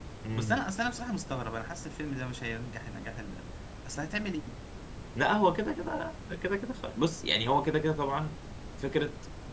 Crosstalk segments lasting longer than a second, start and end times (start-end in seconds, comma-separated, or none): none